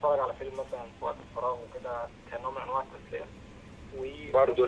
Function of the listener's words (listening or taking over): taking over